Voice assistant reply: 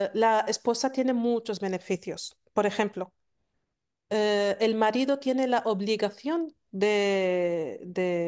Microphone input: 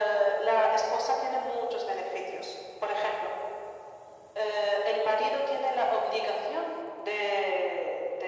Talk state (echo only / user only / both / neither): echo only